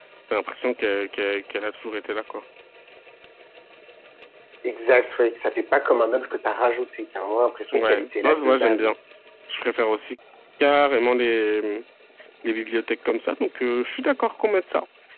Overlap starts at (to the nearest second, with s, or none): 8 s